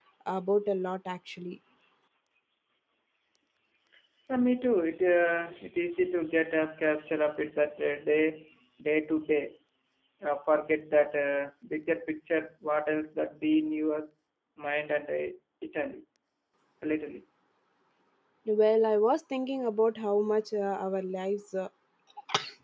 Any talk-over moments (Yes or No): No